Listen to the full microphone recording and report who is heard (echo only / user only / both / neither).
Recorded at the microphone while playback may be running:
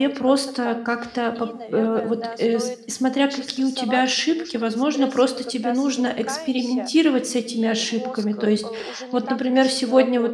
both